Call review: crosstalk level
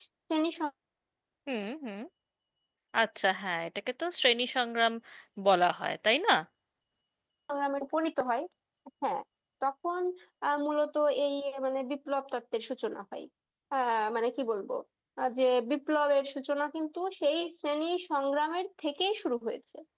none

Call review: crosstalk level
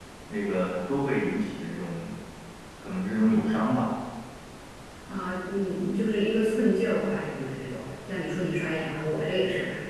none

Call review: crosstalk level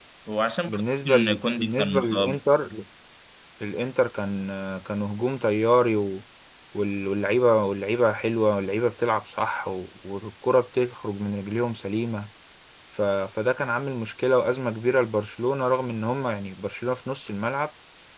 present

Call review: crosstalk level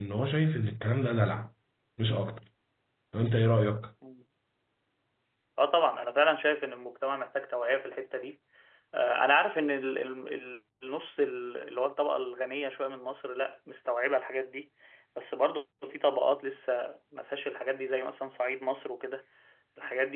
none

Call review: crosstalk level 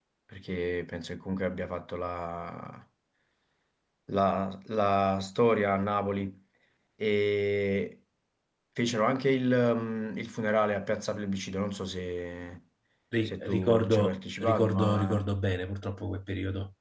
present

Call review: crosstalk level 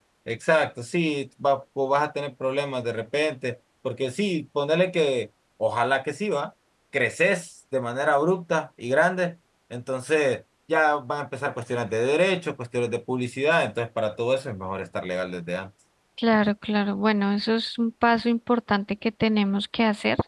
none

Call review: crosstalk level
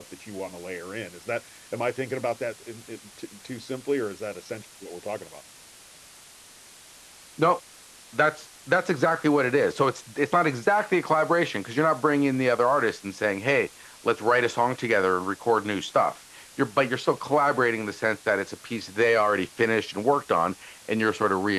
none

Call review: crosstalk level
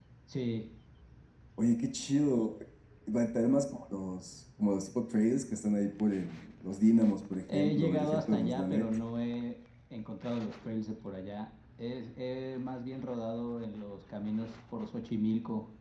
present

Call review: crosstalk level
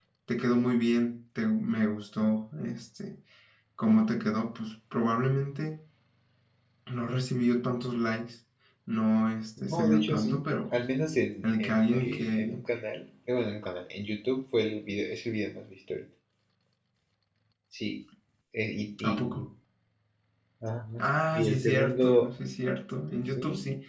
present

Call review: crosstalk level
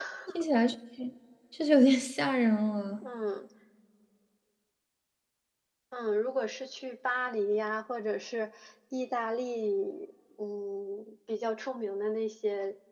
none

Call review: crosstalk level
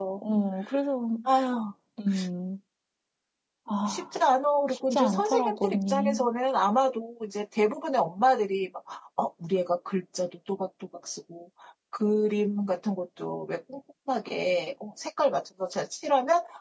present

